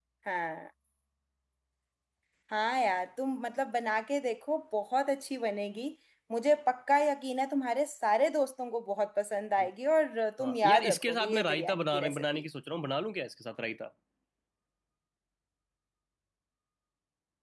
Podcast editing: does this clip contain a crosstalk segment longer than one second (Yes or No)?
Yes